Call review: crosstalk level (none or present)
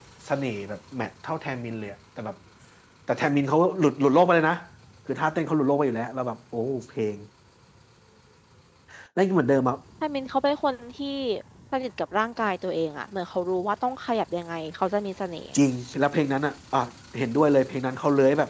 none